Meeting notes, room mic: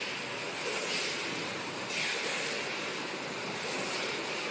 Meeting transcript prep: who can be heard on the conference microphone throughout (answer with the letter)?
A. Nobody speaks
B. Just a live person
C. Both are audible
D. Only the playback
A